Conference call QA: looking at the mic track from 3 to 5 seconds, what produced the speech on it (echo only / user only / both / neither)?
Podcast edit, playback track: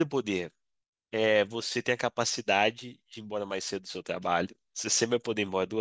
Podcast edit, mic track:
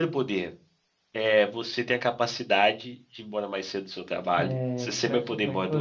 both